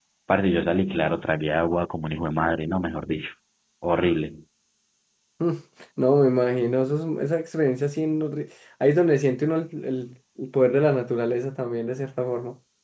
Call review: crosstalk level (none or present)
none